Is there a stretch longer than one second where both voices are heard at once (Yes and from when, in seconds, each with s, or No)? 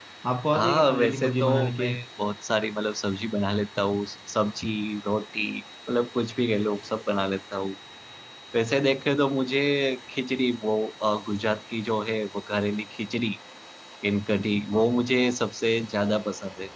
Yes, from 0.5 s